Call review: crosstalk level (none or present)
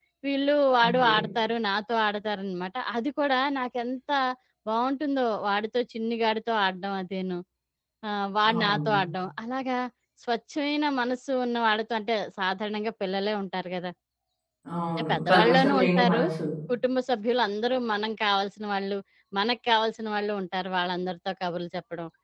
present